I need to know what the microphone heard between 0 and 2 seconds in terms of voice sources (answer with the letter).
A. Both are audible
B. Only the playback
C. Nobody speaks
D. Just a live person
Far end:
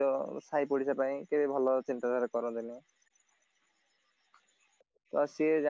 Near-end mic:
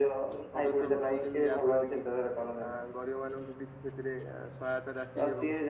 A